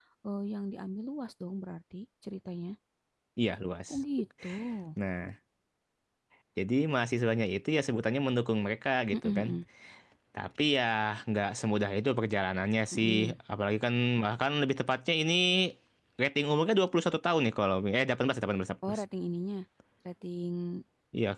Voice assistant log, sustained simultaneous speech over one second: none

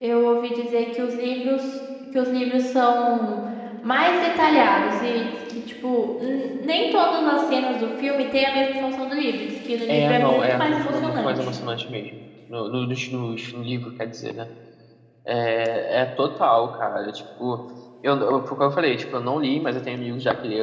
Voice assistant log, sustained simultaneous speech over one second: present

